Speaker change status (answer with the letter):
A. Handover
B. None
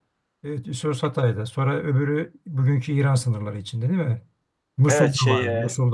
A